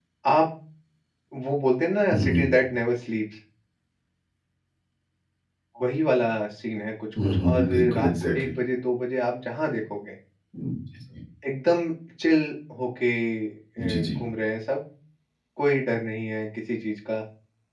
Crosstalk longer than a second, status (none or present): present